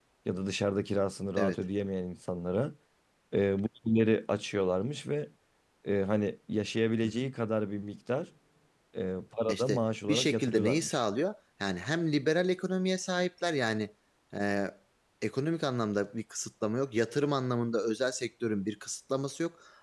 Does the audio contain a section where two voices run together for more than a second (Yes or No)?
Yes